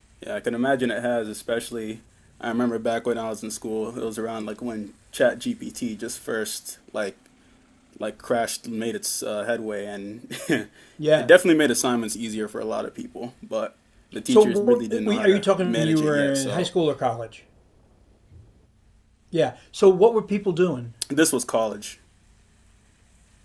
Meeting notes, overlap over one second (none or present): present